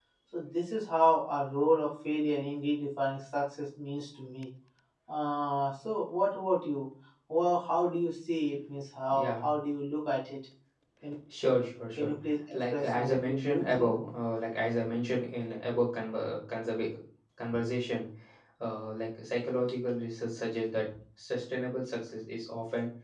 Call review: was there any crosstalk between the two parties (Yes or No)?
Yes